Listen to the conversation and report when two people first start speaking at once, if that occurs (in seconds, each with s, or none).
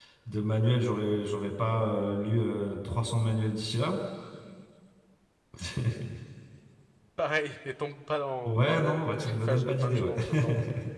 8.4 s